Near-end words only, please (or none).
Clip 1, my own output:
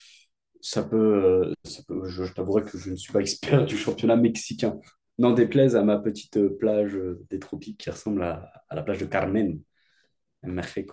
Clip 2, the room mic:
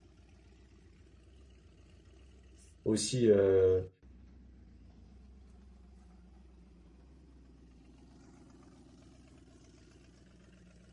aussi euh,